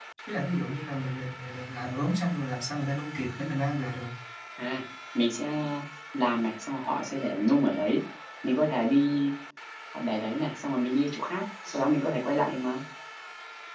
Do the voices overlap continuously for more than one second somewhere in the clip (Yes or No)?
No